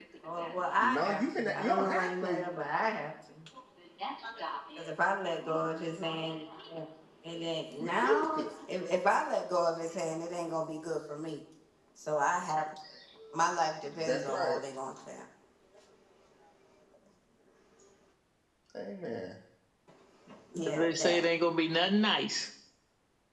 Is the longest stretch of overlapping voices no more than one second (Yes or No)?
No